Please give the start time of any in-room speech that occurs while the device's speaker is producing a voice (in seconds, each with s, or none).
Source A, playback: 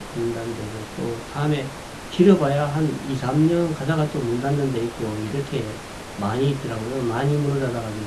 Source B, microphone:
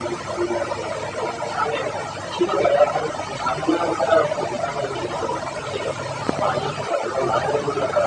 none